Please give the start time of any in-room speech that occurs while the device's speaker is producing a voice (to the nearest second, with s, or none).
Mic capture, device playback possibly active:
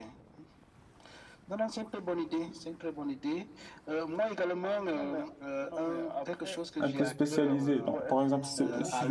7 s